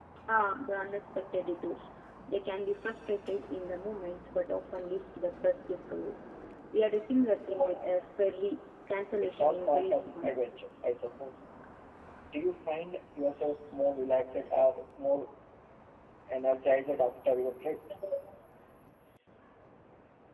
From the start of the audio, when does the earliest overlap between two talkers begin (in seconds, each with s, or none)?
9.2 s